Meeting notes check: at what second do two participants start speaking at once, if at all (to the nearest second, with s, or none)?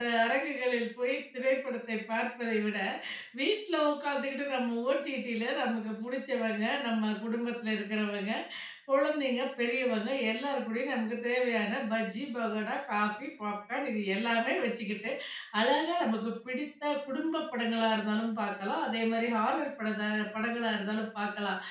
none